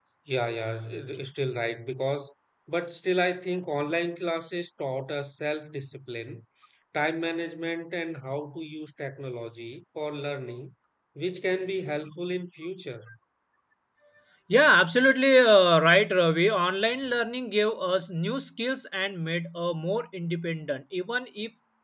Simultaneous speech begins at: none

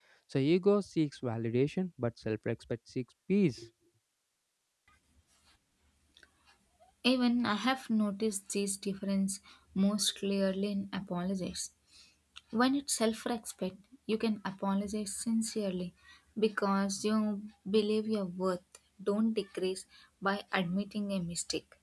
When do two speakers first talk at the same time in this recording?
none

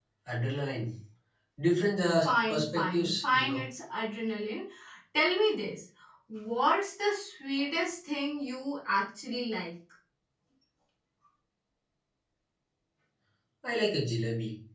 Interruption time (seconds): 2.2 s

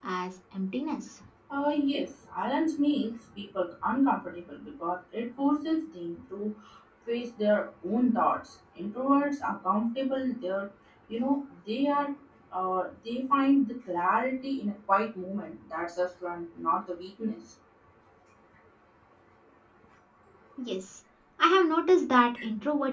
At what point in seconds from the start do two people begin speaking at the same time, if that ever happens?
none

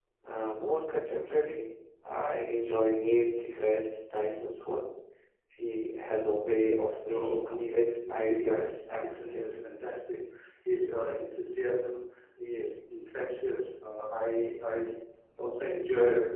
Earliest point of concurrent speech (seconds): 7.1 s

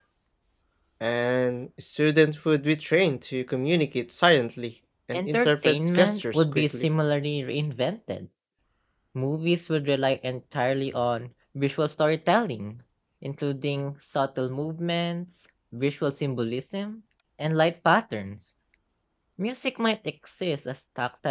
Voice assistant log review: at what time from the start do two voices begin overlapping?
5.1 s

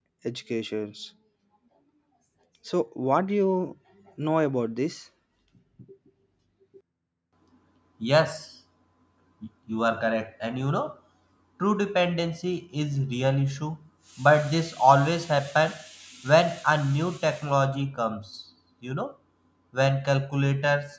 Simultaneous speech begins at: none

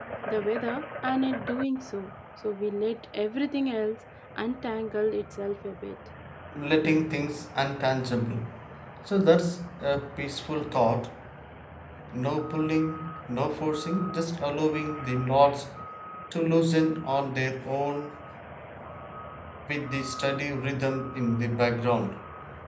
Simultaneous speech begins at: none

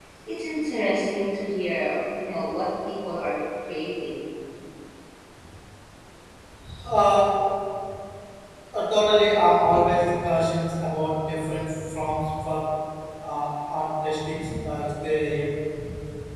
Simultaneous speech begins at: none

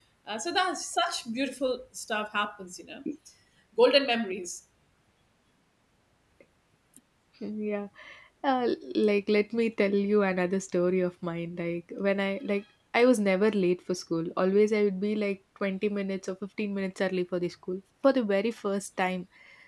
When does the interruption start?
none

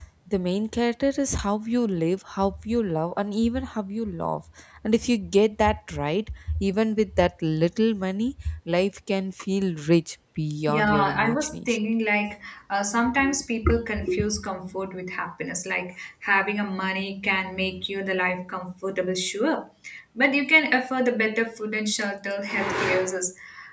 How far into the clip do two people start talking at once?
10.7 s

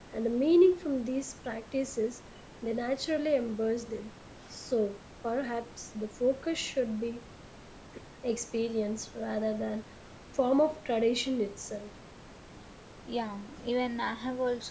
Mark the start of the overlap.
none

